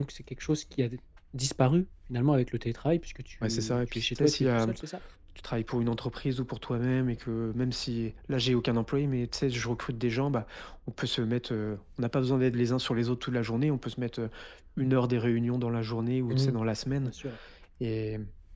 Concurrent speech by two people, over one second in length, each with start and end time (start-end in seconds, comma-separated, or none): 3.4-4.8